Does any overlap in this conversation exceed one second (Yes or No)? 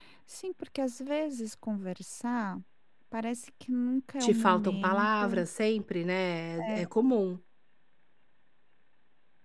Yes